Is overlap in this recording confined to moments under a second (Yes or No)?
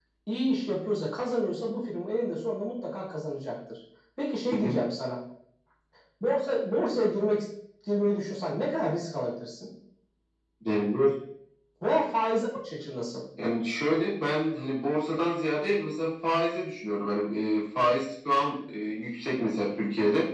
Yes